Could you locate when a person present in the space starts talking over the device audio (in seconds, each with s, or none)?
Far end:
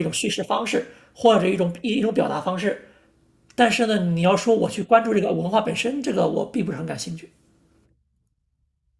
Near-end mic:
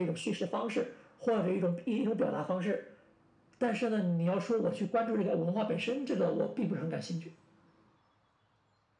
none